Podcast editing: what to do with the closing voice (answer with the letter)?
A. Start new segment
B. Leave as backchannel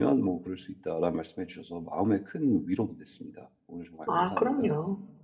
A